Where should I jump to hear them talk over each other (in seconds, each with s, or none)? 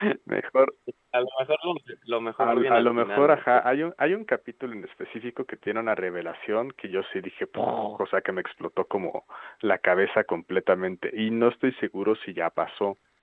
2.4 s